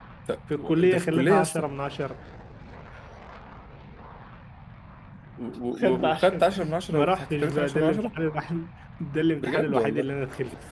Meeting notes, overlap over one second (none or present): present